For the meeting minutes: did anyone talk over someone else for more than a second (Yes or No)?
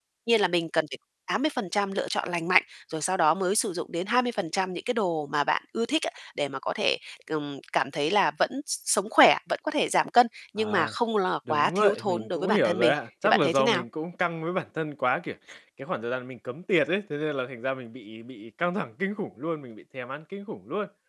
Yes